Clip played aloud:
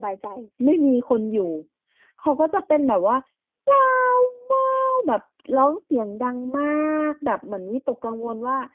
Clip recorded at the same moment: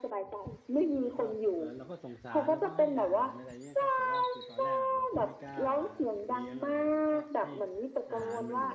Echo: present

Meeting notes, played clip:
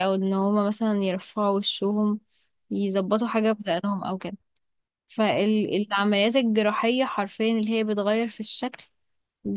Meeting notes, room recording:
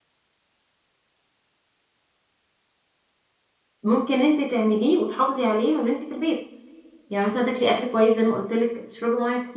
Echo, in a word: none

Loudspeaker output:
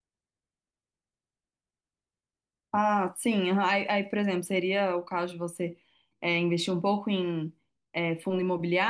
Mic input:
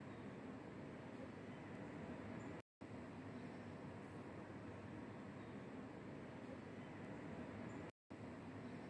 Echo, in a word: none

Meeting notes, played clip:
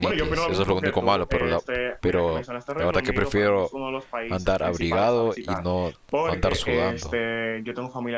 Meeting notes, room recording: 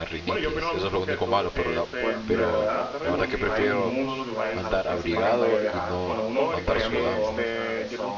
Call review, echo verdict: present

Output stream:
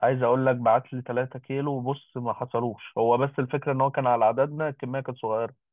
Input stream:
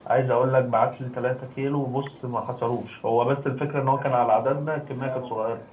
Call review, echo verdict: present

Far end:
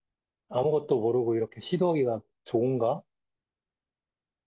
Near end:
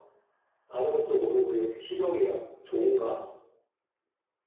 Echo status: present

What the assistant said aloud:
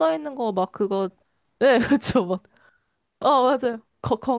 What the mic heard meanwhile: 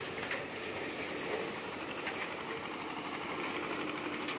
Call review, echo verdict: none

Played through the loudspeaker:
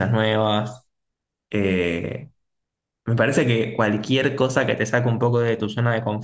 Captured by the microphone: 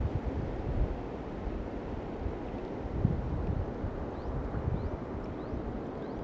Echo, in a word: none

